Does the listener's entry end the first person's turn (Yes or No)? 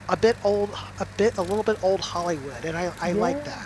Yes